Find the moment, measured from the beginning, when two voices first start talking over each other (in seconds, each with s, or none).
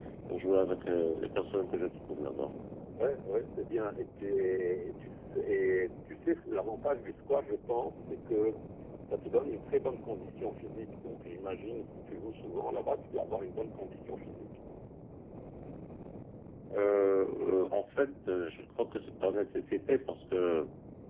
none